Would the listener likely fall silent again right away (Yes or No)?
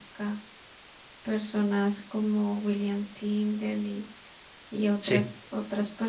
Yes